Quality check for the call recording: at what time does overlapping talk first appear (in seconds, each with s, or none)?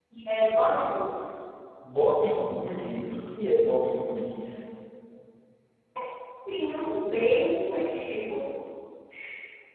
none